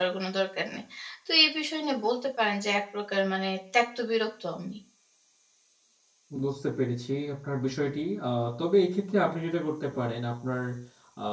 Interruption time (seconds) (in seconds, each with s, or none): none